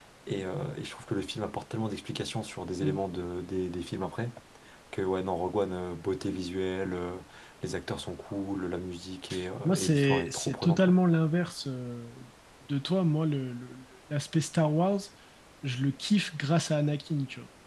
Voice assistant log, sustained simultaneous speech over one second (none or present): present